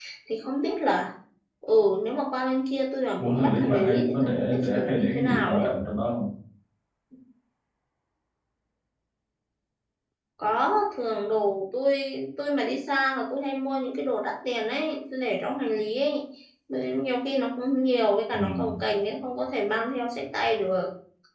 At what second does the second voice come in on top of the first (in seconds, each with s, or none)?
3.2 s